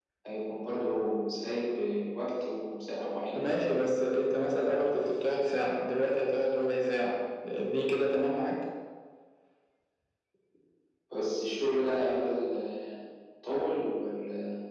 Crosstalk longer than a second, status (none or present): none